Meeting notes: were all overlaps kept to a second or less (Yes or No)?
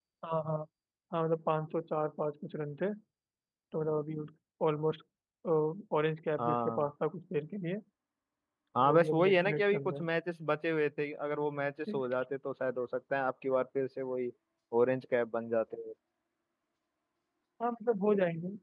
No